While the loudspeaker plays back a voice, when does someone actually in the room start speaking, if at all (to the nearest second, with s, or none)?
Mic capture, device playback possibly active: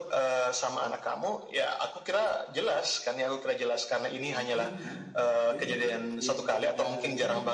4 s